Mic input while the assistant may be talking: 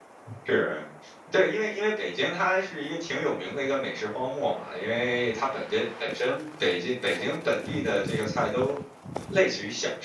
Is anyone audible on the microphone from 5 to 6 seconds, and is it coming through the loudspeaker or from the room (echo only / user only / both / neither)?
user only